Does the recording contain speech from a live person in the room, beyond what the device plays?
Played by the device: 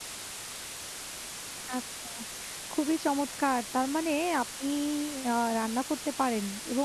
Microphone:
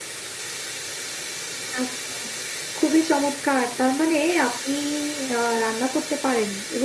No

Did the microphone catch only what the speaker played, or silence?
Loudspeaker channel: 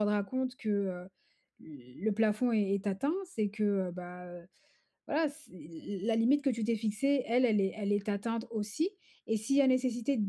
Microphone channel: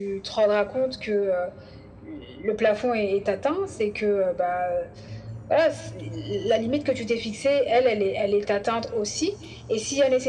Yes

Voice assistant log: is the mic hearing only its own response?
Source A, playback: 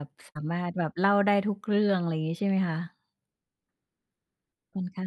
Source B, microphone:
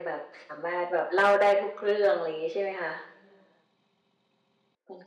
Yes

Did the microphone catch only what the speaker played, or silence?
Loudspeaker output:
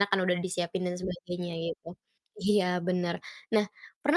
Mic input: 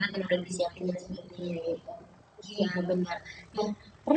Yes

